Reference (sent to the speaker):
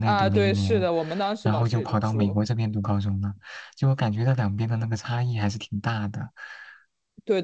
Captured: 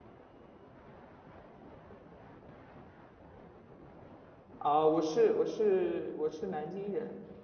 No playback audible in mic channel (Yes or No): Yes